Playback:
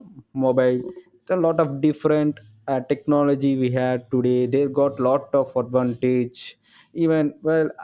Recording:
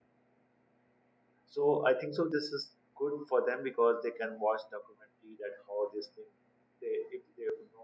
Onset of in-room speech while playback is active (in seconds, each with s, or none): 1.5 s